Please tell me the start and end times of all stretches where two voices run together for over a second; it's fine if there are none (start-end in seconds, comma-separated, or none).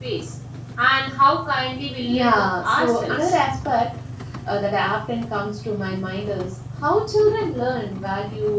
2.0-3.4